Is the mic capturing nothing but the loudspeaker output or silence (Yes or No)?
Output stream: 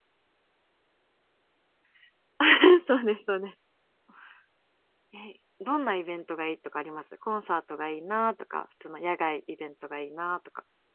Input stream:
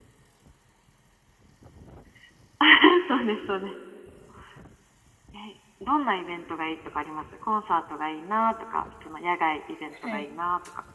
No